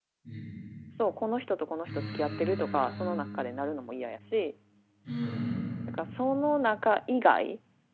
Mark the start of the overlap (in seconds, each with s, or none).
1.8 s